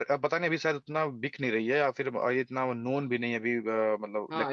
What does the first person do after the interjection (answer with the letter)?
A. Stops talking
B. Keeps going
A